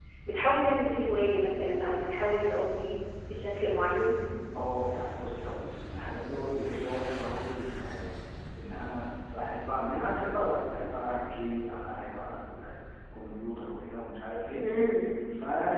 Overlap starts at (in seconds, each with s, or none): none